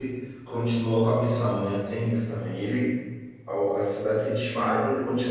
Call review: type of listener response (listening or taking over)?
listening